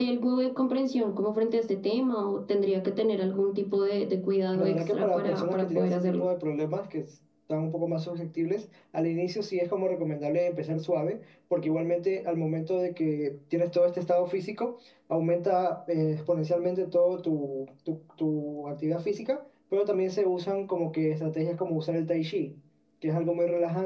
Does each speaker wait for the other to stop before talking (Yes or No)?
No